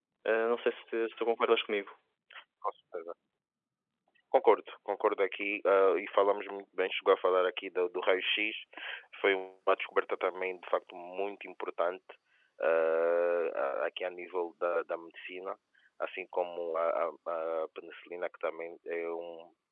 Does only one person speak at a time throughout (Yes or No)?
Yes